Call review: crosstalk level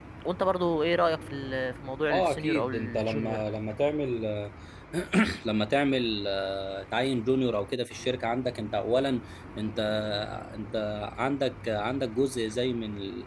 present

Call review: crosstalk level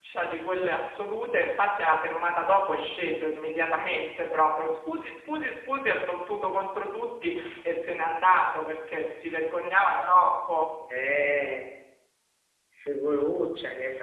none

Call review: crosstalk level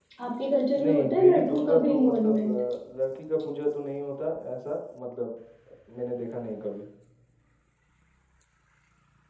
present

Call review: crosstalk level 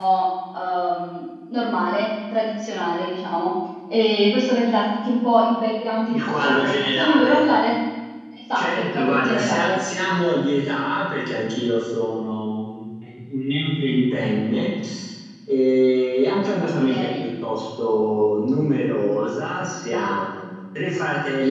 present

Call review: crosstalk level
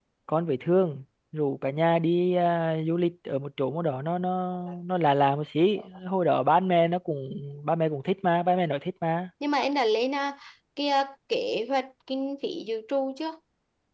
none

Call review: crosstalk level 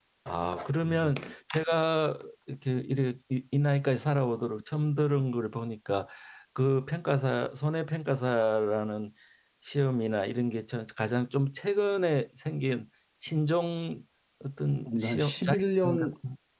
present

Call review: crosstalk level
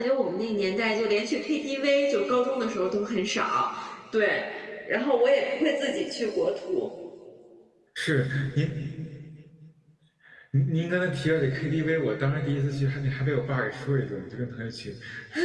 none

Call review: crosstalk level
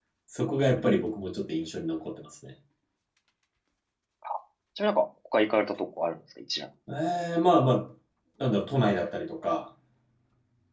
none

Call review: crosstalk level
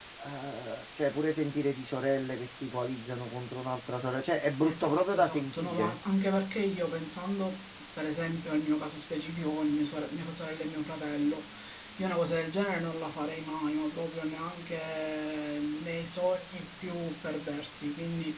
present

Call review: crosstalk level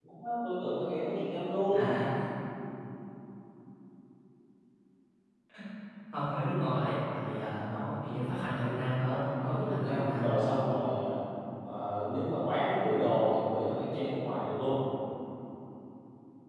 present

